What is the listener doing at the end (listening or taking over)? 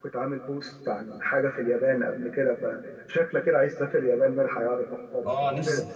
taking over